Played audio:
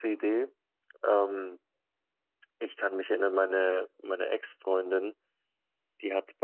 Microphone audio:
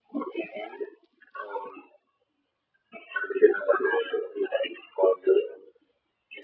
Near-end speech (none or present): none